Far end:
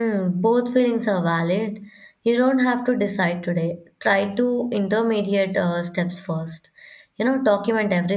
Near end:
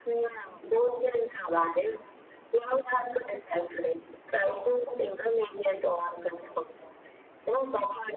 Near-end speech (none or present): none